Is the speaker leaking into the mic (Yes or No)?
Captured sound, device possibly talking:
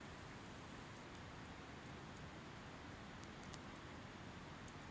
No